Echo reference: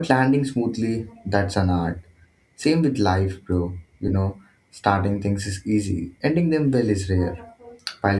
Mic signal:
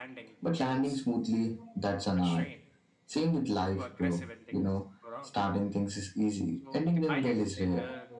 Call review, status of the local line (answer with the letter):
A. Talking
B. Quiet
A